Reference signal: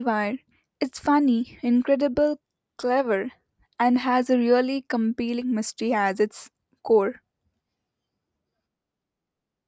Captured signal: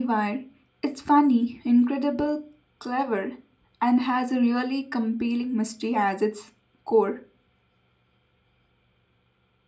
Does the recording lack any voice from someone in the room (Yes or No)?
Yes